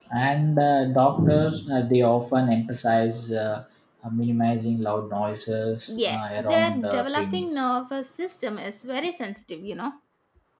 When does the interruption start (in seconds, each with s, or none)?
5.9 s